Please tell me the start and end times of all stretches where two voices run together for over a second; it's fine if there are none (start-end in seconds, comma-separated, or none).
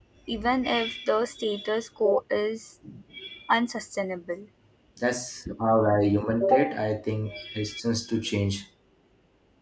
none